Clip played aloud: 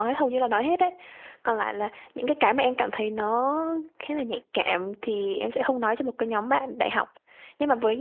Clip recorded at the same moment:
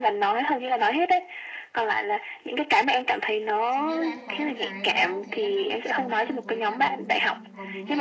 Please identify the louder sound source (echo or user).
echo